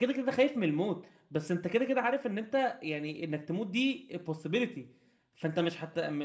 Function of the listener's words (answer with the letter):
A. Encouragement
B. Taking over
A